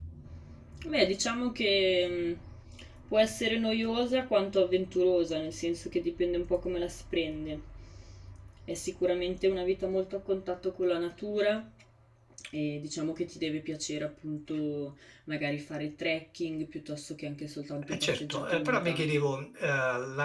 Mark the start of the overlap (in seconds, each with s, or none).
17.8 s